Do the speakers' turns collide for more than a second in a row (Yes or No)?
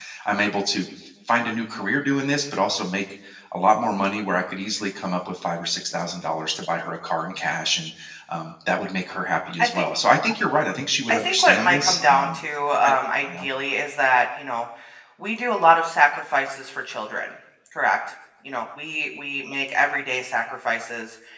Yes